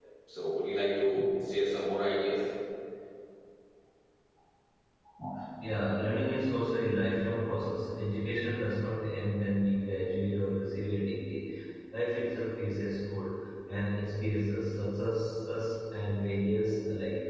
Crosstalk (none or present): none